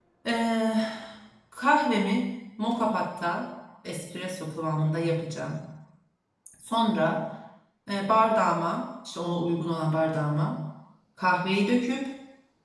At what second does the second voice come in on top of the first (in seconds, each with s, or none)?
none